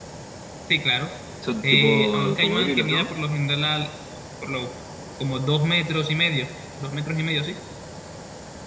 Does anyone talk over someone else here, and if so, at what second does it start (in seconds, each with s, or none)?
1.7 s